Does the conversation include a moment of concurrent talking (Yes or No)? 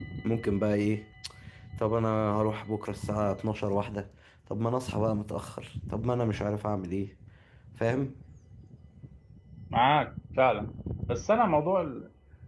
No